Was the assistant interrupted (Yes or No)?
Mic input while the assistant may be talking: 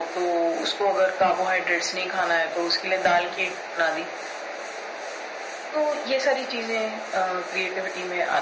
No